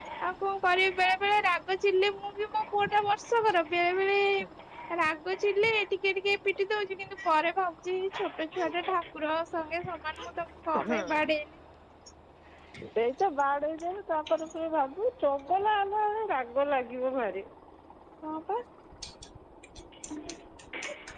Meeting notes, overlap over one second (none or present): none